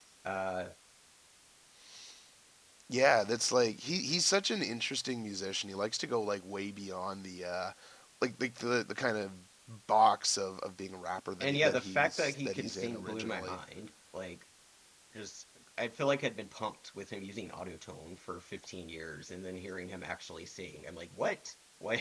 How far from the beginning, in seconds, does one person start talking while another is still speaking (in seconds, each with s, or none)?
11.4 s